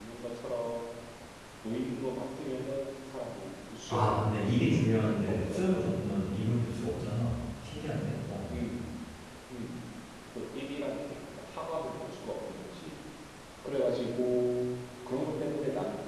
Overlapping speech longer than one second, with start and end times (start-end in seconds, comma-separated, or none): 3.9-5.6